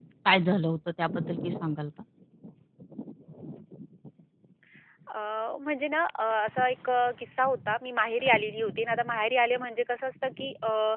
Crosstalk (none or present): none